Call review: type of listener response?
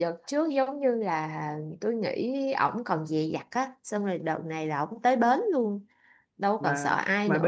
taking over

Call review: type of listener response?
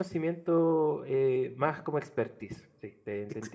taking over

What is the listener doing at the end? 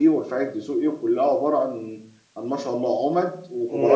taking over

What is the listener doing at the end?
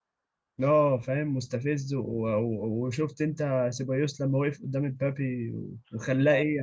taking over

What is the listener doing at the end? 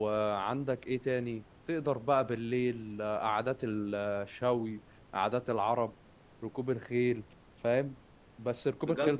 taking over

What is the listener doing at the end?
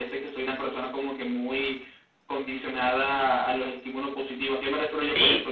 taking over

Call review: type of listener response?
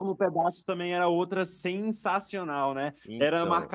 listening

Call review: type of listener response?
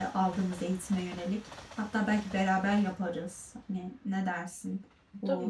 taking over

